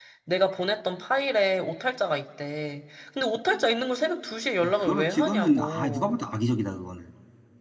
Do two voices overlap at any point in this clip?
Yes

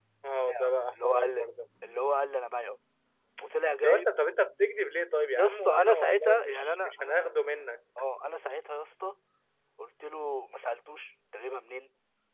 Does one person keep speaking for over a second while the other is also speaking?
Yes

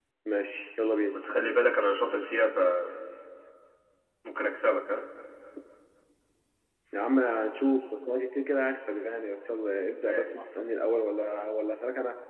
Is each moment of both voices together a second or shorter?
Yes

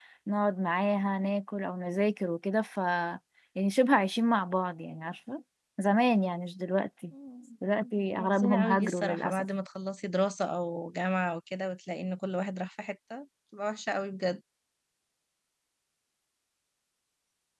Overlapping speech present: Yes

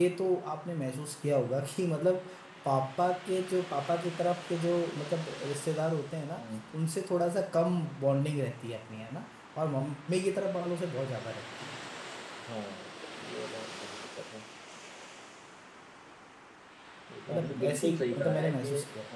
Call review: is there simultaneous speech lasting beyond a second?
Yes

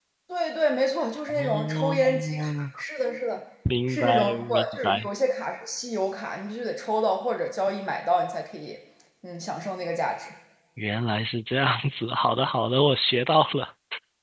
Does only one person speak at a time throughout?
No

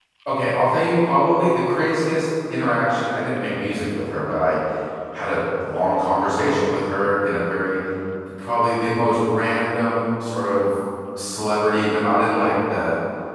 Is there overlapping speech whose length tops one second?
No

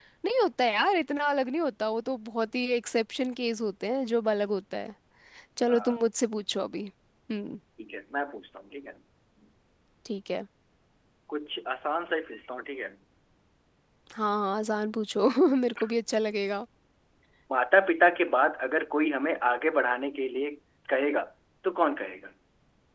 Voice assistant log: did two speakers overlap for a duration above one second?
No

